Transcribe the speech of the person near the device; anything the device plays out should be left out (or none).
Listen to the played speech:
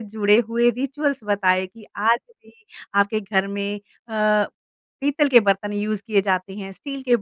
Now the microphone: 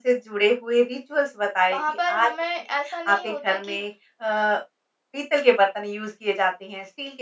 वहाँ पर हमें ऐसा नहीं होता कि